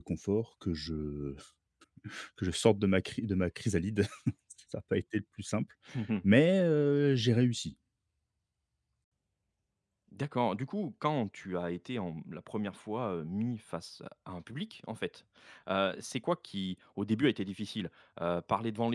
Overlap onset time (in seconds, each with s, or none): none